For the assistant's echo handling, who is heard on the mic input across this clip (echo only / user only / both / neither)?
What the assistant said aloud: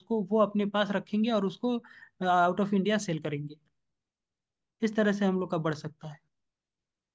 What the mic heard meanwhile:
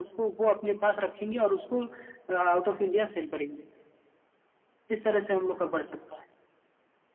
echo only